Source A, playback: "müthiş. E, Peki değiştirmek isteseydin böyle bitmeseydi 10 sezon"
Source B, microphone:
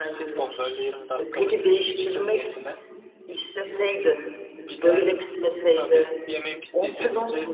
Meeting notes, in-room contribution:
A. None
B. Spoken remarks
B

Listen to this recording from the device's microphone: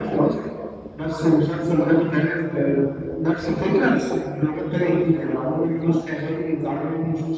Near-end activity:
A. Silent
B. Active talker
A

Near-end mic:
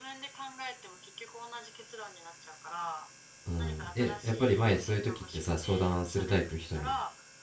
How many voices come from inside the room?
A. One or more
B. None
A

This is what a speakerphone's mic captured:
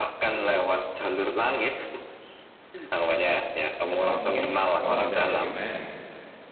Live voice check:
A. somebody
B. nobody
A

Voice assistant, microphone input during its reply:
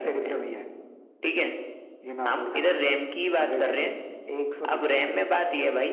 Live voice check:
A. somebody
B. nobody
B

